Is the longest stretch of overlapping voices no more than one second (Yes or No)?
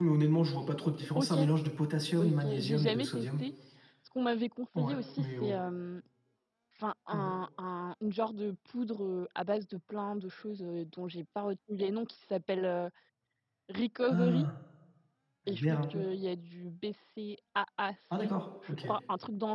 No